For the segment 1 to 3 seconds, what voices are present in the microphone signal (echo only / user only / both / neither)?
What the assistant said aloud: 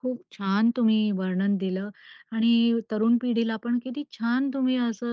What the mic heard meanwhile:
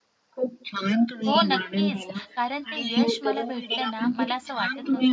both